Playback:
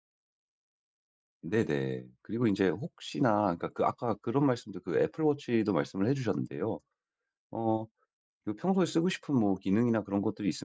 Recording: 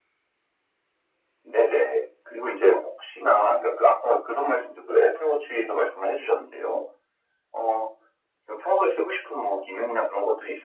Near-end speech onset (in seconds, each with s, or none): none